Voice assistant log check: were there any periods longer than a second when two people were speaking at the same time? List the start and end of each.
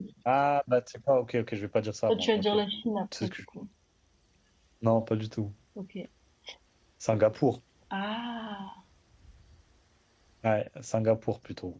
none

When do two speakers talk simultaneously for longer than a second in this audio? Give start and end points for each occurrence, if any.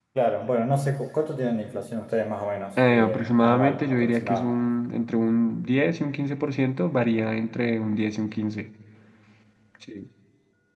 2.8-4.5

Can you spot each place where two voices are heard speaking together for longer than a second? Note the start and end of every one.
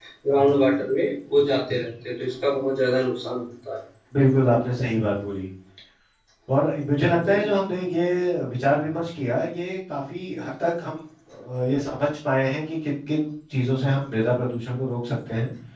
none

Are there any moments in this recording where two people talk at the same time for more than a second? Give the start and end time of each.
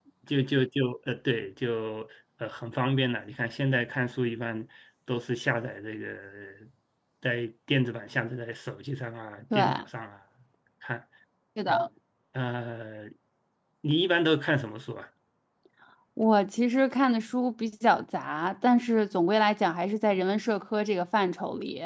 none

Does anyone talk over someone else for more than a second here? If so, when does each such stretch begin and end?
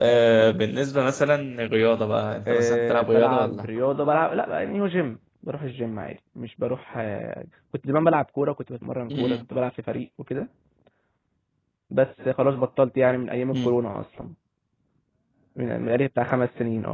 2.5-3.7

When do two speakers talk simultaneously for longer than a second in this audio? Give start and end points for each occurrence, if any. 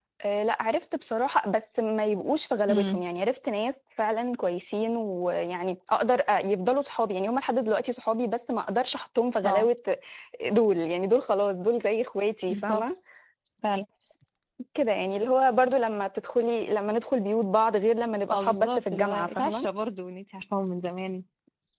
18.3-19.7

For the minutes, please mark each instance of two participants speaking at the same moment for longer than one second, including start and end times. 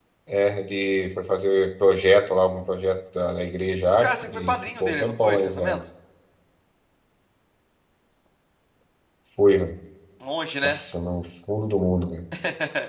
4.0-5.8

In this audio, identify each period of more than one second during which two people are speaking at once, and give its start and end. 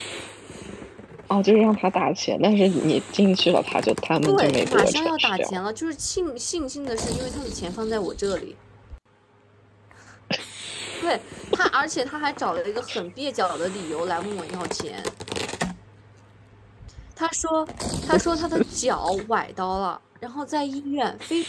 4.3-5.6

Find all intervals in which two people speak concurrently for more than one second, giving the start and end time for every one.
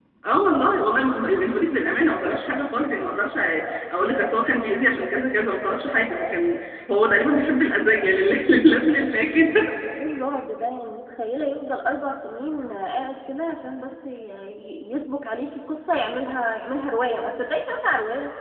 none

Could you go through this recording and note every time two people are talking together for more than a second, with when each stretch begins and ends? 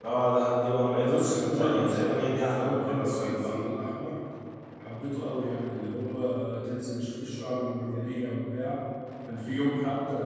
1.0-3.6

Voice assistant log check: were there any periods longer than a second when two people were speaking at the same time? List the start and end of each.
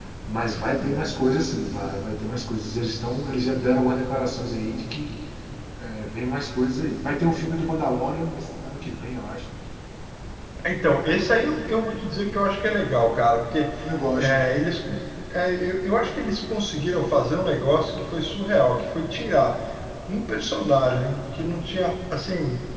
none

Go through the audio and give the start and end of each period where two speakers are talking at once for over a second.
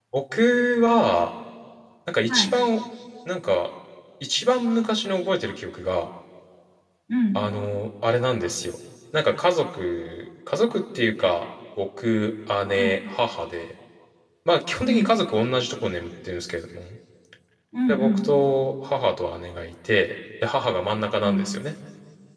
none

